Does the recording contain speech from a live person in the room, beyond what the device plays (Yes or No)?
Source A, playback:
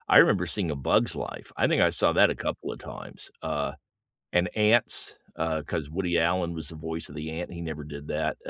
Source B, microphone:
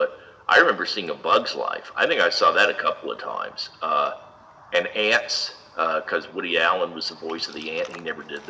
No